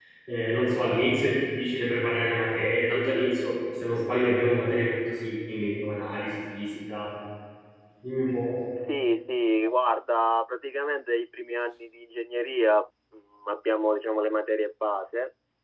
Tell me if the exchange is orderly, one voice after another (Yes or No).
Yes